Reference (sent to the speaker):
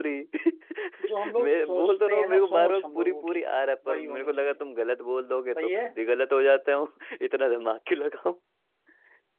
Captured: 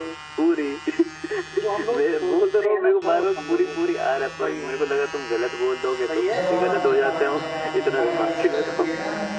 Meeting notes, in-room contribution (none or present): present